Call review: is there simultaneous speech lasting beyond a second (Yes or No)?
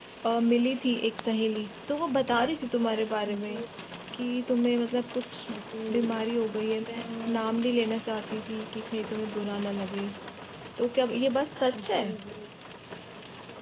No